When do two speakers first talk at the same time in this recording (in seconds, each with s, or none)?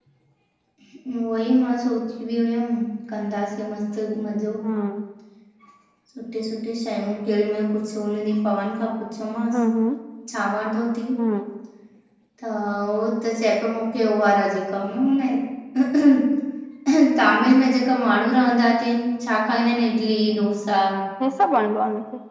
none